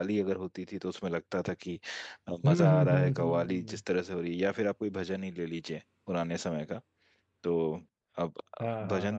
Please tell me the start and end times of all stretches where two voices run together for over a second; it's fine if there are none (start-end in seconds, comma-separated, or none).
2.5-3.8